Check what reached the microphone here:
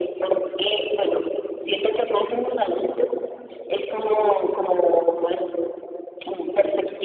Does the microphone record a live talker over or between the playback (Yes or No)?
No